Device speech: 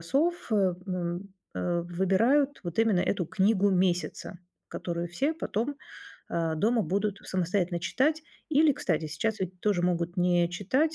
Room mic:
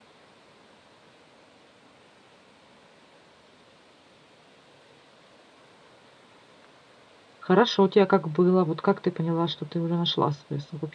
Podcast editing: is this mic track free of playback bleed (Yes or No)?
Yes